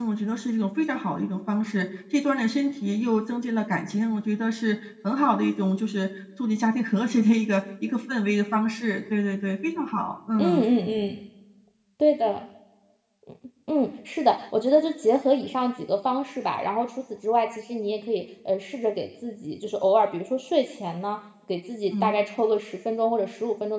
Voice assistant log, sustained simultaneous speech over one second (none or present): none